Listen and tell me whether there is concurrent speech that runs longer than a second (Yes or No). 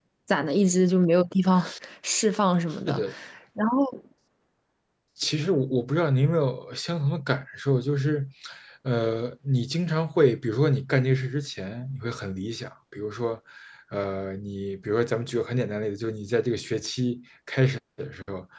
No